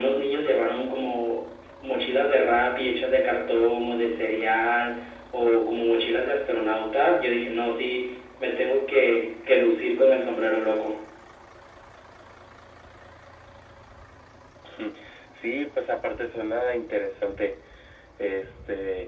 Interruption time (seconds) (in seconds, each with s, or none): none